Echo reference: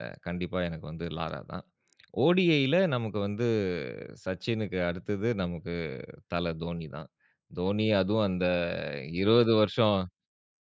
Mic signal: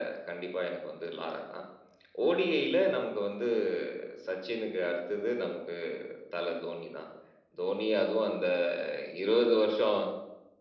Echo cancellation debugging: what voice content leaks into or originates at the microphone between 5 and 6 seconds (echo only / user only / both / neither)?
echo only